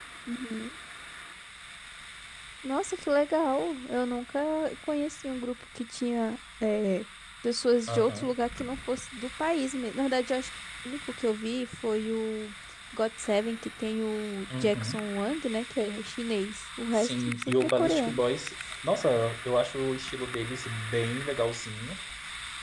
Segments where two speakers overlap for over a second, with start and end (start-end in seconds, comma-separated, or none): 16.9-18.2